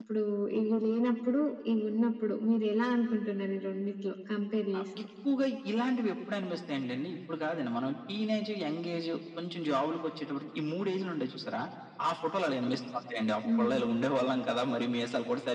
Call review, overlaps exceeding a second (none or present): none